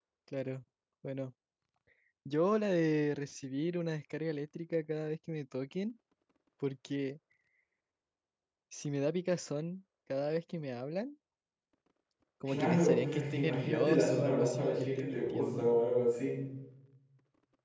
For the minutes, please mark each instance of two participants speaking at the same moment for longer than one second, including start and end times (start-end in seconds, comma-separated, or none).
12.4-15.7